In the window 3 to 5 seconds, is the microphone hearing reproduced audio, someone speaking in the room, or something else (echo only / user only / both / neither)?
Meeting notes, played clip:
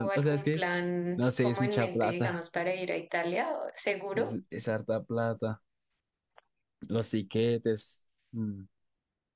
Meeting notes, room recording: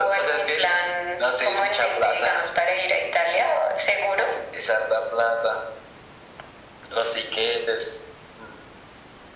echo only